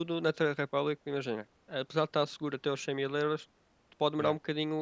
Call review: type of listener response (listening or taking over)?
listening